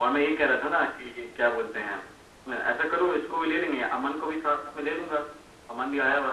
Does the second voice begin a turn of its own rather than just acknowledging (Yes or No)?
Yes